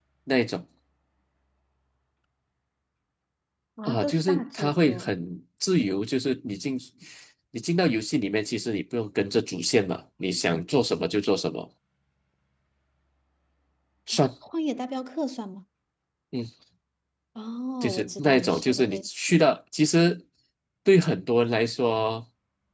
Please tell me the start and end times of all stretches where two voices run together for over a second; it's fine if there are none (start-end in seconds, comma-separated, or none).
3.9-5.1, 17.8-19.5